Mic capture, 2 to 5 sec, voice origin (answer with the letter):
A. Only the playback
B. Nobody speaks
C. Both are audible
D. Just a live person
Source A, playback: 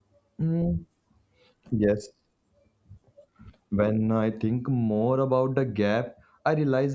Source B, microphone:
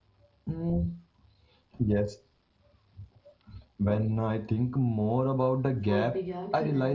A